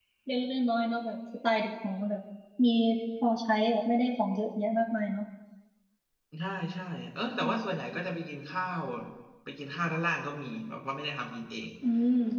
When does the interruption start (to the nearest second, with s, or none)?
none